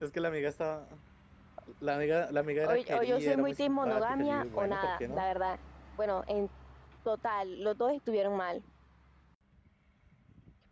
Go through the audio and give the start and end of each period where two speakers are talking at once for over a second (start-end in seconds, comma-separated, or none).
2.6-5.2